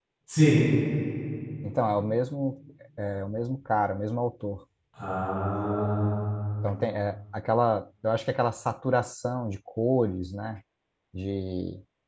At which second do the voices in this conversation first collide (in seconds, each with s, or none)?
none